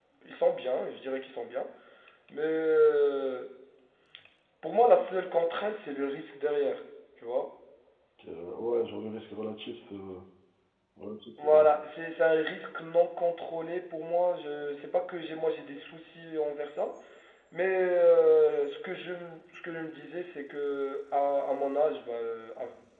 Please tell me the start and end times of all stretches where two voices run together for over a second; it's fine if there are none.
none

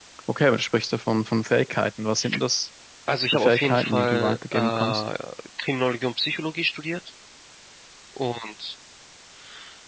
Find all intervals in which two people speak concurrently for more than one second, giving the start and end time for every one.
3.3-5.0

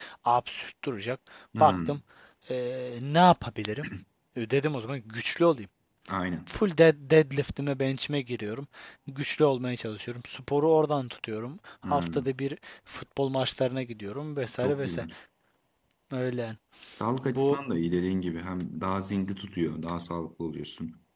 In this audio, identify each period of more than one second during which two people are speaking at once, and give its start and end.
none

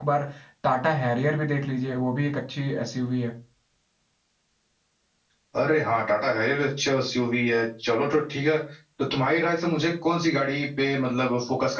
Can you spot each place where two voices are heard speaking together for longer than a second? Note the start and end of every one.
none

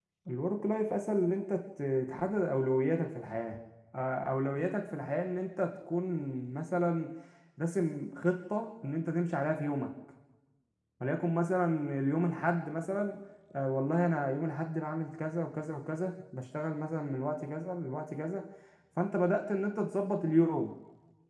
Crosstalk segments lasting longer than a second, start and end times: none

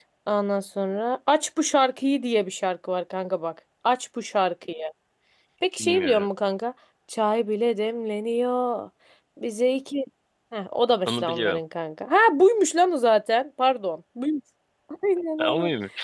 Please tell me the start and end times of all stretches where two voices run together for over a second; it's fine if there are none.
none

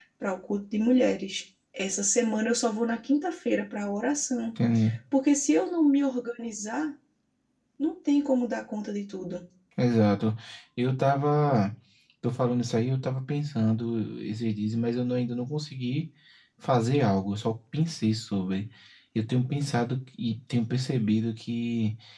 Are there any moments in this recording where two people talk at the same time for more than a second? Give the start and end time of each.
none

